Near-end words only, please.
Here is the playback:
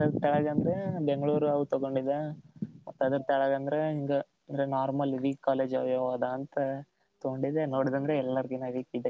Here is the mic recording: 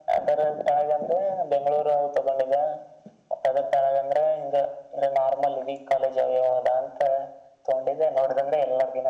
none

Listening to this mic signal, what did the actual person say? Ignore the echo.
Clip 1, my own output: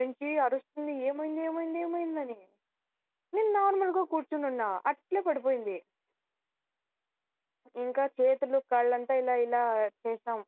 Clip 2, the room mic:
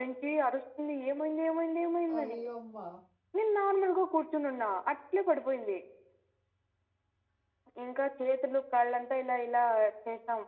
అయ్యోమ్మా

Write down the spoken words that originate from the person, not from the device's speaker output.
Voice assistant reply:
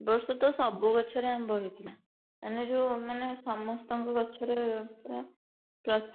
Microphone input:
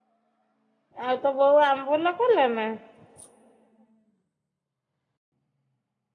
ଆଉ ତ ବୋଉ ଆମ୍ବୁଲ କରୁନାହାନ୍ତି ନା?

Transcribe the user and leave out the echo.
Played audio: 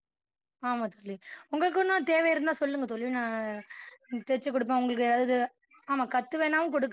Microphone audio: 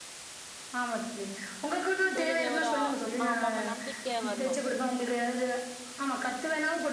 புரியுது. ஒரு ஆமாமா நம்பிக்கை வரணும்.

